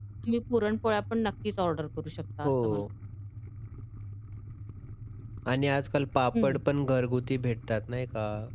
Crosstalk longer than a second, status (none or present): none